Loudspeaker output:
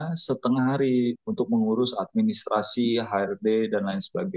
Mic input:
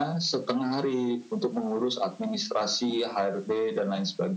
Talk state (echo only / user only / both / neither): echo only